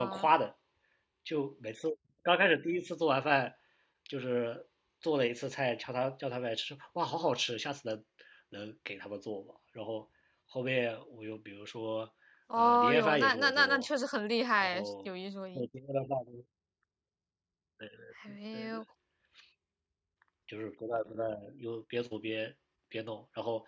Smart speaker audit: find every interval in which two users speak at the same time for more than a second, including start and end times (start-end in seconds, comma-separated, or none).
12.6-13.9